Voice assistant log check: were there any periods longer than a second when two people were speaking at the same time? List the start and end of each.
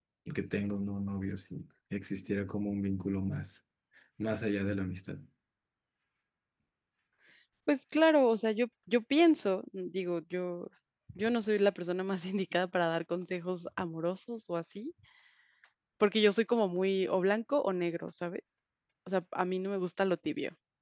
none

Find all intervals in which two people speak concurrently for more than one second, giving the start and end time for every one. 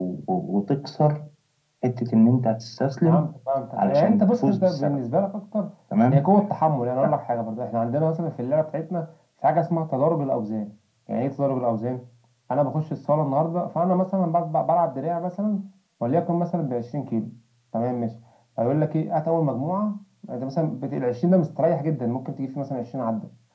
3.8-5.0

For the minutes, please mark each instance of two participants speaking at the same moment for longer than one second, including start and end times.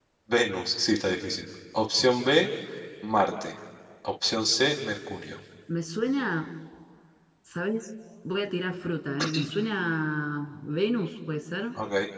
none

